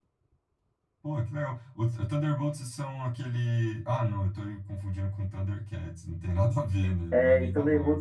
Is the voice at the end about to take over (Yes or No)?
Yes